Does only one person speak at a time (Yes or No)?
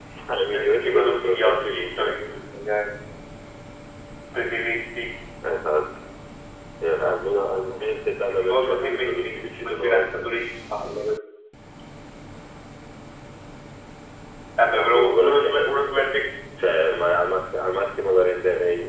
No